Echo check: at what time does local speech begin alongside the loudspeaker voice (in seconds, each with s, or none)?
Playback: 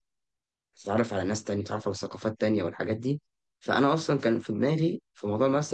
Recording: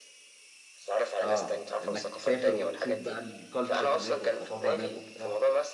1.2 s